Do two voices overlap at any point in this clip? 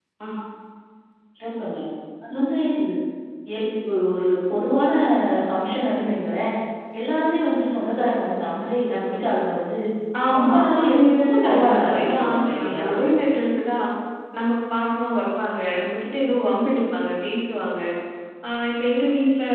Yes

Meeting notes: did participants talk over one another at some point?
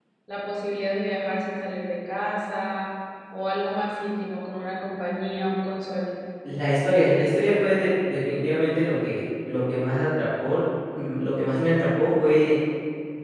No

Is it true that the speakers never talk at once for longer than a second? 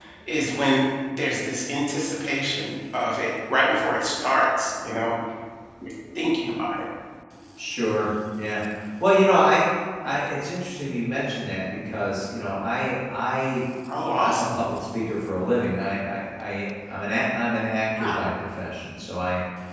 Yes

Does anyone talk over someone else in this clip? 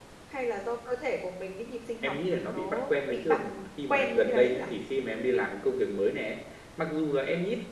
Yes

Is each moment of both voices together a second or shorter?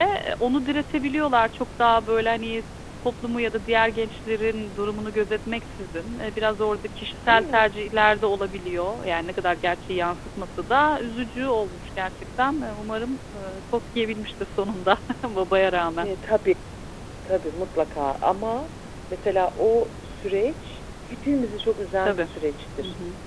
Yes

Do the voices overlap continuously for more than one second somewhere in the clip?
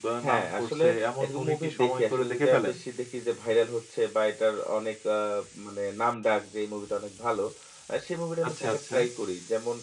Yes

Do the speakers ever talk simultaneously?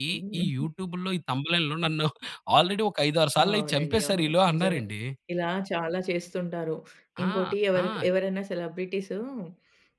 Yes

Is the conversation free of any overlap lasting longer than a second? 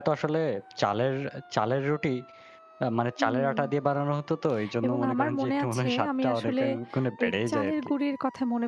No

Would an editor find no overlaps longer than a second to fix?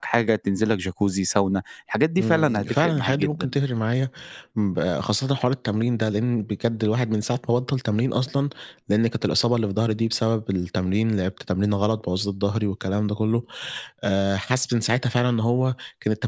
No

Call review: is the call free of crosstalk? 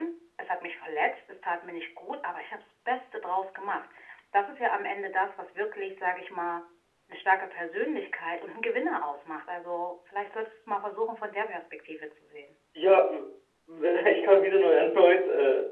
Yes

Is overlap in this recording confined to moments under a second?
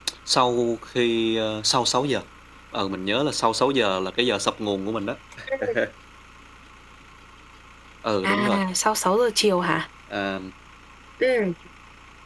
Yes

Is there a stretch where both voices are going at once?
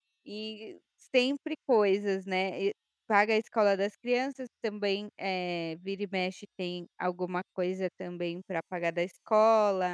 No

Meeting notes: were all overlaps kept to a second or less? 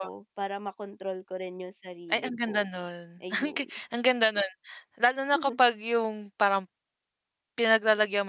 Yes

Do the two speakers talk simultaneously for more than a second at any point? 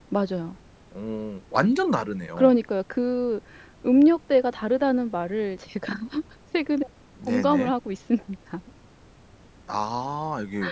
No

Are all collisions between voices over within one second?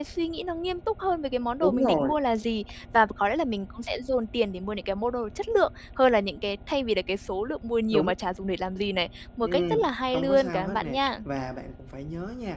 No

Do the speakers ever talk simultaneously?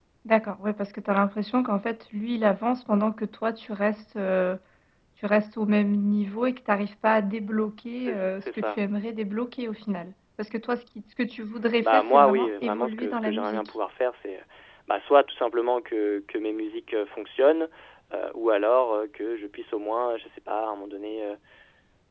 Yes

